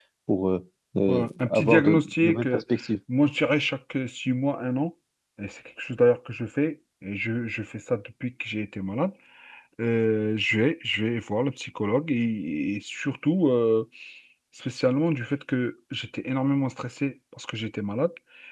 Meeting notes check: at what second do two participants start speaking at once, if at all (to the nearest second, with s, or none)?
1 s